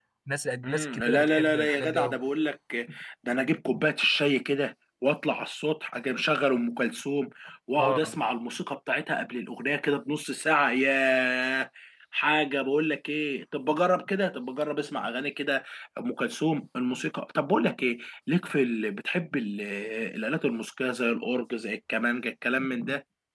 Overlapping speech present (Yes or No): Yes